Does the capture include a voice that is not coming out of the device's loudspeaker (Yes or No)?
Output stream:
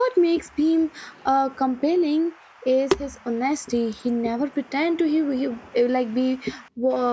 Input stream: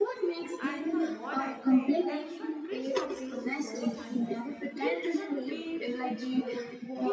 Yes